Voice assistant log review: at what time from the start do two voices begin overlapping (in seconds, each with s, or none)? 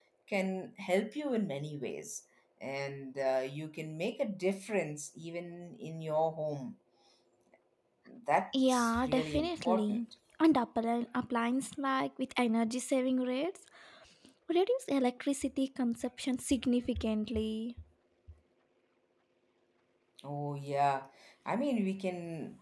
8.7 s